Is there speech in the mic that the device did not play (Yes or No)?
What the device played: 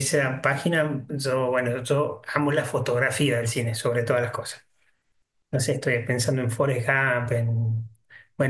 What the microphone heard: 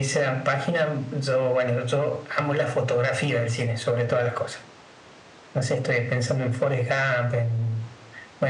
No